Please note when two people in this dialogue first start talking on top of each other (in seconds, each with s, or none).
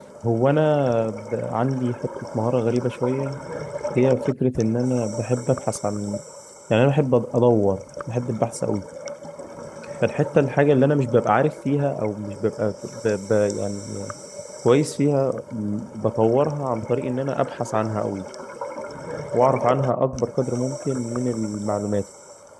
none